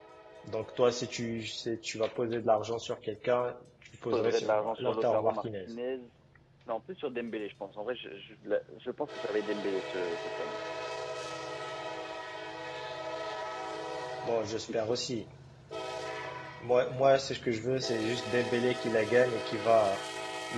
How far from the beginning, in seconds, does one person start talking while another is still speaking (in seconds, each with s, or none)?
4.1 s